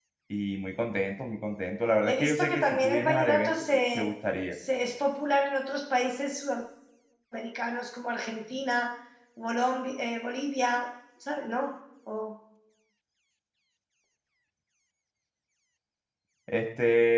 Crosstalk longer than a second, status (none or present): present